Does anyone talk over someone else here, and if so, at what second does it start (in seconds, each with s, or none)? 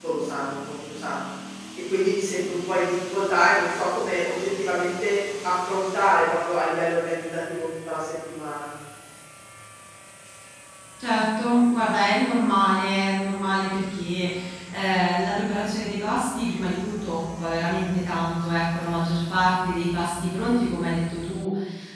none